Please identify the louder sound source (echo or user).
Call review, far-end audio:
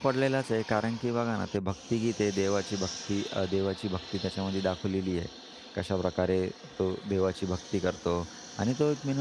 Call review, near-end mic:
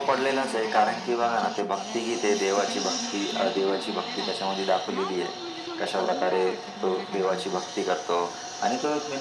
echo